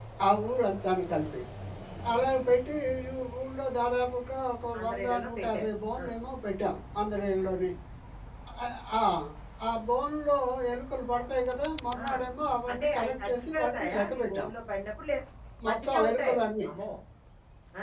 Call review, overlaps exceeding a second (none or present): present